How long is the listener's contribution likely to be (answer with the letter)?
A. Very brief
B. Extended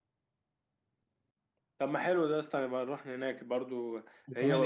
A